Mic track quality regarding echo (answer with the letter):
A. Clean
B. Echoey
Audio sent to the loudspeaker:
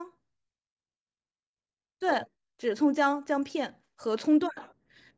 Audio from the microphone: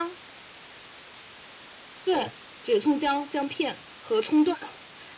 B